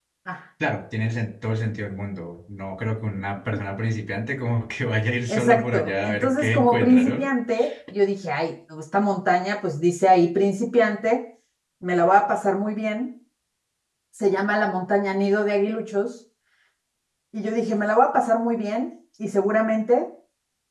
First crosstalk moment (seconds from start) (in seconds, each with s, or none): 5.3 s